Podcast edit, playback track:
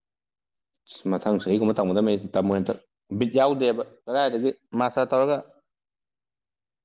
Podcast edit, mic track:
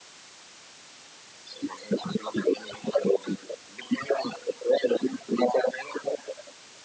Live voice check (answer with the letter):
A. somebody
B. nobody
B